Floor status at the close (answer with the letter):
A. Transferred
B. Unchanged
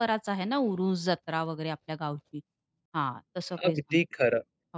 A